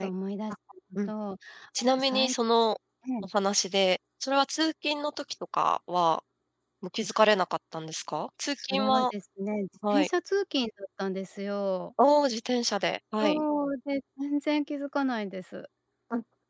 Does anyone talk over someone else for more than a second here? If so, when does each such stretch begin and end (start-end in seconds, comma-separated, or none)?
none